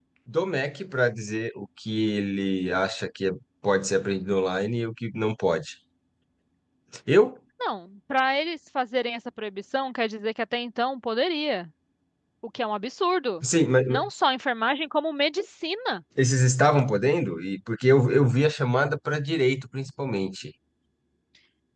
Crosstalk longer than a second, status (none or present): none